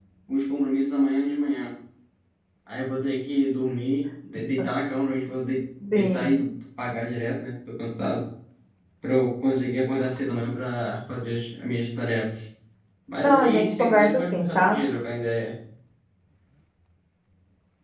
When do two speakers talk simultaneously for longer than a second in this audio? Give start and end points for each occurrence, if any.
13.2-14.8

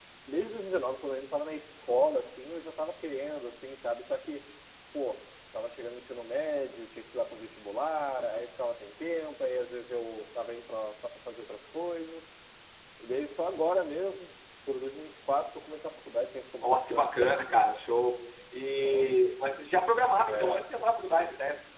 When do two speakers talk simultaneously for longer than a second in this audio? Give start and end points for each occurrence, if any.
none

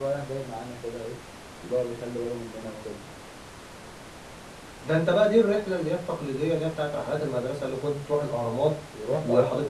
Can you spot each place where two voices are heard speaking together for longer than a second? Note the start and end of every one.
none

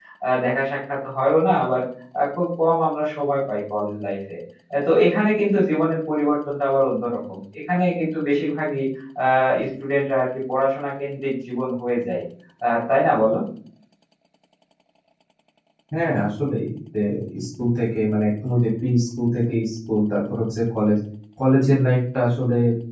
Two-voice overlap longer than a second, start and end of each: none

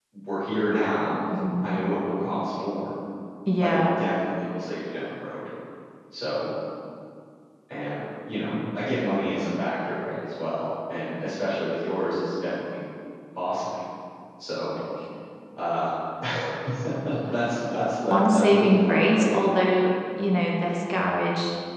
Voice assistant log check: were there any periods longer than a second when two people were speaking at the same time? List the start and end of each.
17.3-19.4

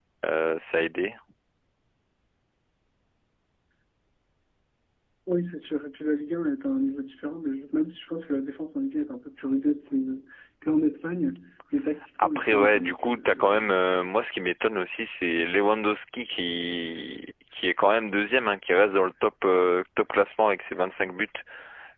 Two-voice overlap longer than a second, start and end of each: 12.2-13.7

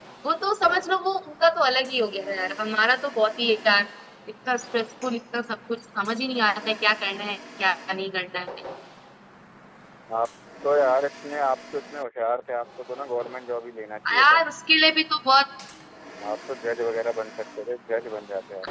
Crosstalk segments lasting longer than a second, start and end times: none

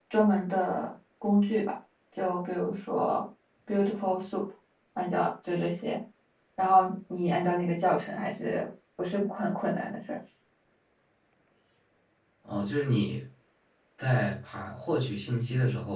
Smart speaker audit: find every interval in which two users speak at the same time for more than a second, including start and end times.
none

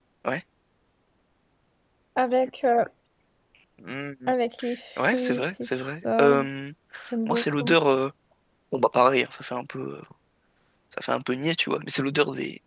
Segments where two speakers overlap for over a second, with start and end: 5.0-6.3

